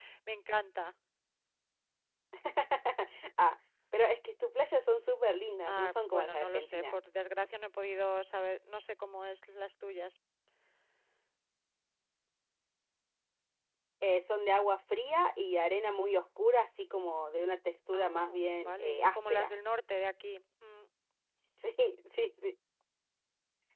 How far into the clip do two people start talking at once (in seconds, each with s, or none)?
5.7 s